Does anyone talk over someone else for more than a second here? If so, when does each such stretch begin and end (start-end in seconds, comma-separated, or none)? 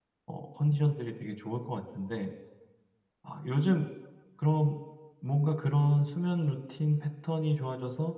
none